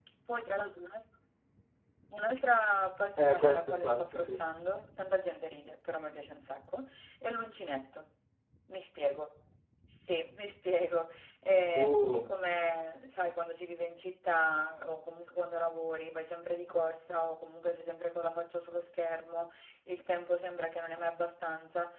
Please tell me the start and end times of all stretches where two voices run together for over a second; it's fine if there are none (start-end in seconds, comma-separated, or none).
3.2-4.4